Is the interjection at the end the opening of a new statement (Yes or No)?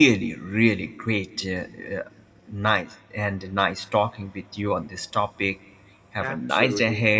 Yes